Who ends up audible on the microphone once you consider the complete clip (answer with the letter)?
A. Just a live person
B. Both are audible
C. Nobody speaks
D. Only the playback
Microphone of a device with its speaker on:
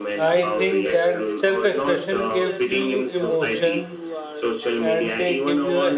B